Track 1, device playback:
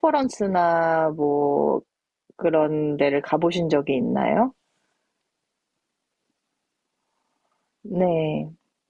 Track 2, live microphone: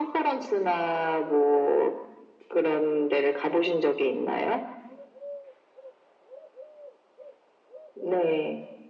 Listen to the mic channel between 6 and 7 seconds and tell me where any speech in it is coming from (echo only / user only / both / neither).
neither